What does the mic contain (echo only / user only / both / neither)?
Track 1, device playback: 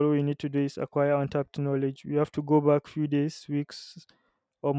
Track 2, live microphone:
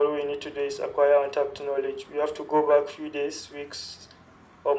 echo only